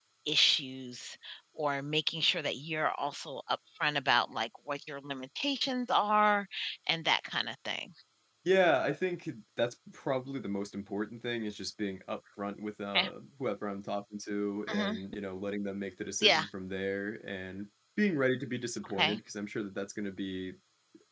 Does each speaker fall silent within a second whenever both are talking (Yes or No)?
Yes